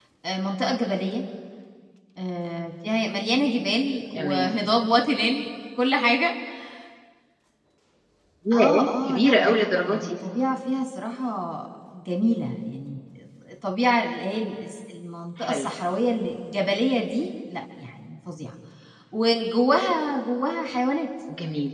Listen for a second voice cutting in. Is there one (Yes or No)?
Yes